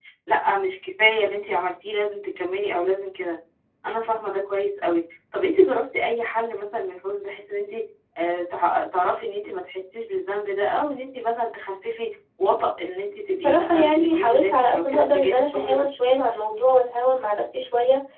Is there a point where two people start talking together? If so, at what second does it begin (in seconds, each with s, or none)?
13.4 s